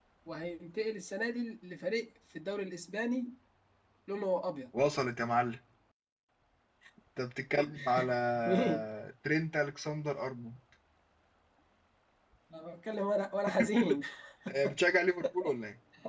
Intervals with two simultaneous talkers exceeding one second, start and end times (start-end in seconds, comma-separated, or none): none